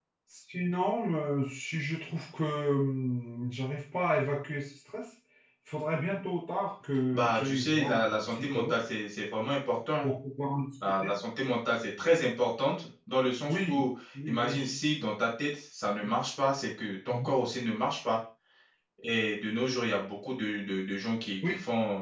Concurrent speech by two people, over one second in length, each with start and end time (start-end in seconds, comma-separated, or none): 7.1-8.7